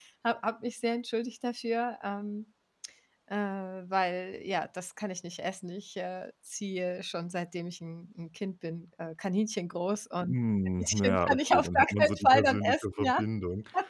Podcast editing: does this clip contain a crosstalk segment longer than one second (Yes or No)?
Yes